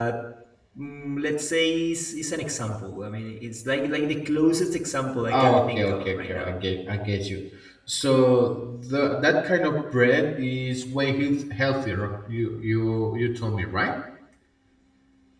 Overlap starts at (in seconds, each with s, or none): 5.3 s